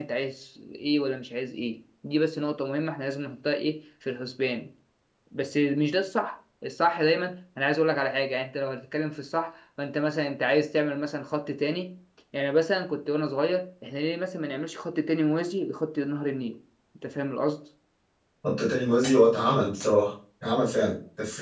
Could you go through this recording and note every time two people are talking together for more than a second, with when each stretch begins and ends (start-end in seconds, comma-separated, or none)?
none